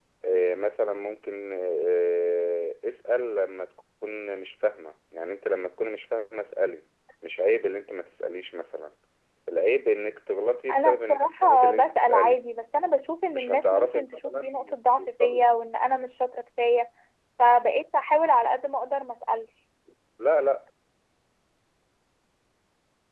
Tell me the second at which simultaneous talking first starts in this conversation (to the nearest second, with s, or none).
11 s